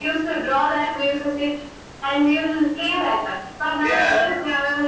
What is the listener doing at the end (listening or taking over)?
listening